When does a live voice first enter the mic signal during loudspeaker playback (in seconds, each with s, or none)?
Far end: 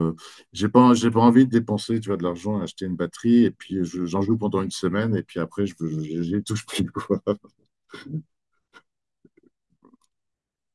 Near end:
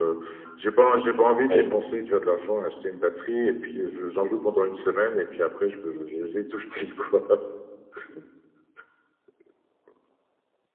1.5 s